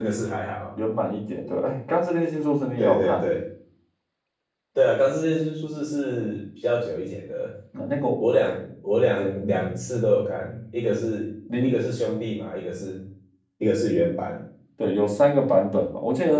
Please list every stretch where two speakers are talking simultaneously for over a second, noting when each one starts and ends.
none

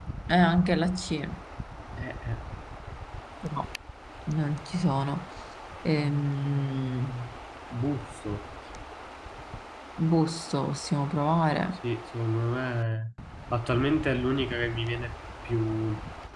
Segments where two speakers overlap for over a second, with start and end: none

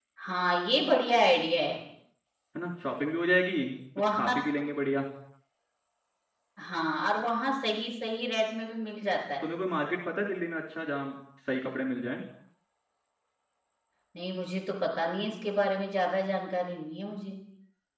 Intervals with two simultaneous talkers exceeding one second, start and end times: none

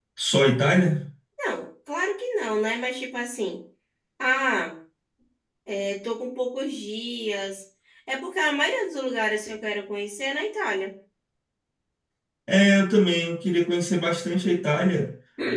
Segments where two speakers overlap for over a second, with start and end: none

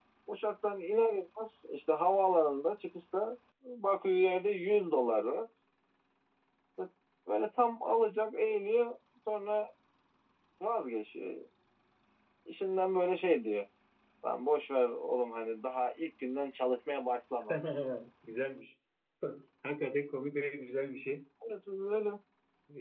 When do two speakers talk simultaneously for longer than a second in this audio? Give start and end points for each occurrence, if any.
none

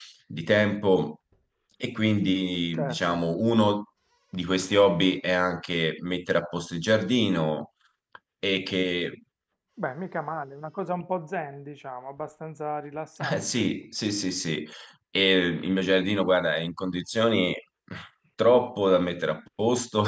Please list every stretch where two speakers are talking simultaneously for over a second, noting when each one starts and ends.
none

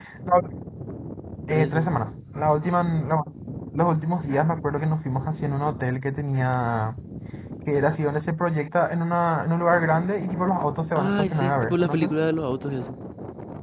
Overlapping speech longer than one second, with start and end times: 11.0-12.2

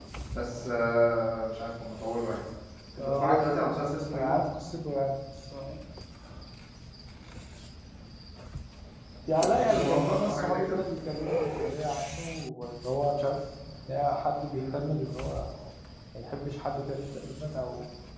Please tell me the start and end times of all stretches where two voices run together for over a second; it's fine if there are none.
3.0-4.4, 9.4-10.6

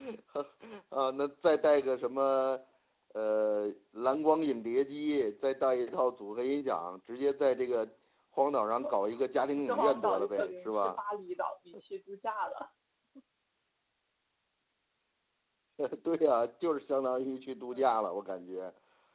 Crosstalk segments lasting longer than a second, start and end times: 9.4-11.0

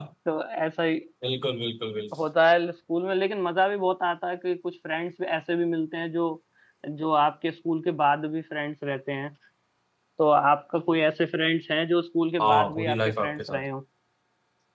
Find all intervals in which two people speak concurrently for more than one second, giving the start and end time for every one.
12.4-13.6

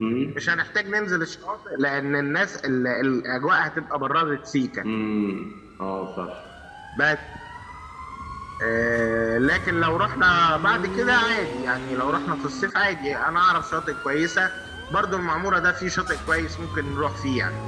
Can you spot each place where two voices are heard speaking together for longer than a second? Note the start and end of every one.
none

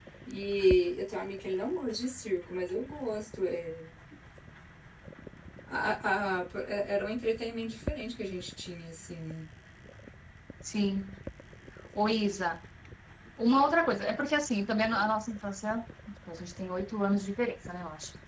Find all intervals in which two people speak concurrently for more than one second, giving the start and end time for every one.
none

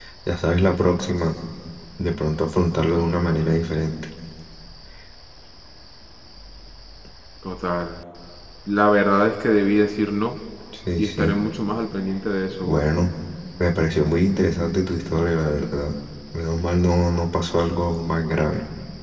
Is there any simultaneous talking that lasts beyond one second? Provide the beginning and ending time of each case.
none

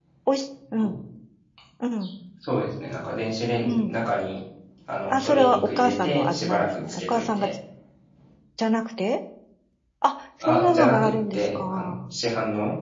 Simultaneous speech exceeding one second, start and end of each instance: 5.1-7.5, 10.4-12.1

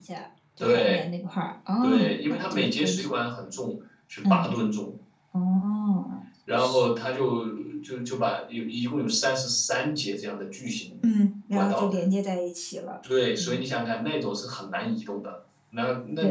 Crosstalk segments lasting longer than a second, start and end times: 1.8-3.1

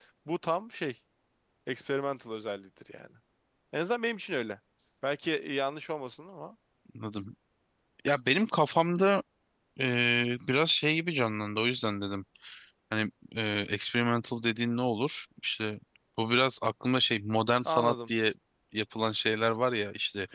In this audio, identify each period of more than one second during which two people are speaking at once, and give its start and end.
none

